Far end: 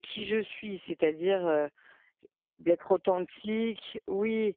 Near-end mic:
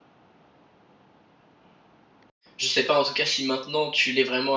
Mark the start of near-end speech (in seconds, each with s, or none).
2.6 s